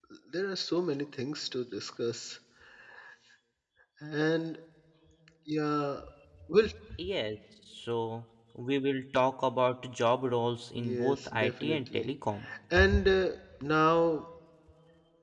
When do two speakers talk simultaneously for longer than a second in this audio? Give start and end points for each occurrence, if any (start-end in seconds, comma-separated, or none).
10.8-12.1